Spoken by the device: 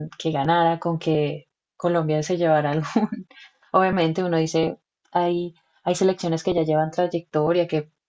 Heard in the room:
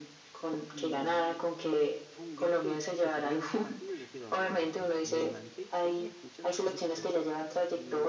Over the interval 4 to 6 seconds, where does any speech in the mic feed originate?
both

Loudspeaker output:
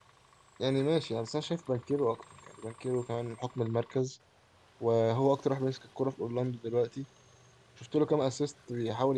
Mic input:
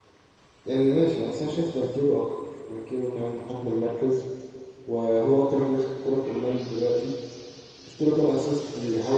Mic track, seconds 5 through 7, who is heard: echo only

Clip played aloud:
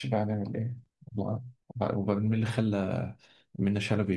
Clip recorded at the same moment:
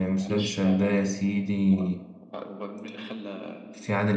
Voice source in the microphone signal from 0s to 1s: both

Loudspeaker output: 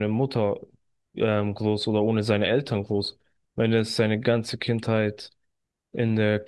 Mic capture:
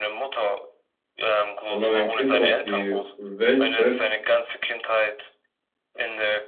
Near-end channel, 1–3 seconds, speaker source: both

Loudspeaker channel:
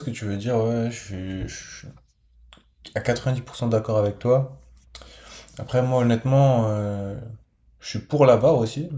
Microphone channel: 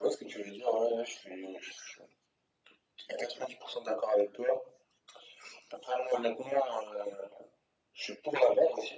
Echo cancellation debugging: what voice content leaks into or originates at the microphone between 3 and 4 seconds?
echo only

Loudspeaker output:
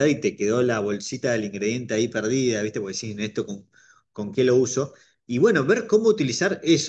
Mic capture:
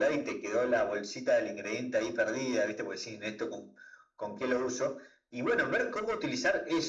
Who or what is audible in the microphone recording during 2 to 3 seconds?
echo only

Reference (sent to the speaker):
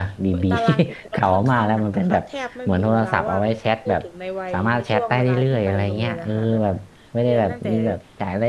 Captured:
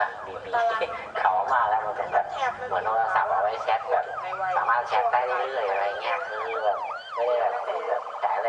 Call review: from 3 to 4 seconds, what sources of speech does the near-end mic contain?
echo only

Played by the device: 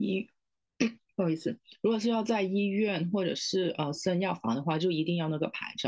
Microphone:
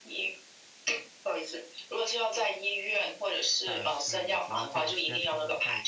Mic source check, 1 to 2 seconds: echo only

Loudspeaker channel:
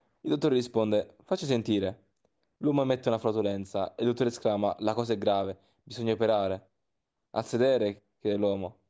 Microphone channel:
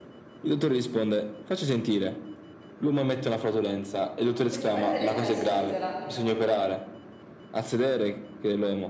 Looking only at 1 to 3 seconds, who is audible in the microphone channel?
echo only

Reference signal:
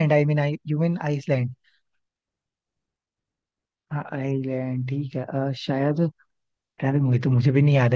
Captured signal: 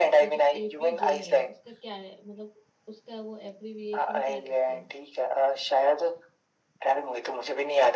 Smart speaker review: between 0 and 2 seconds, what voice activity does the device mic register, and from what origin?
both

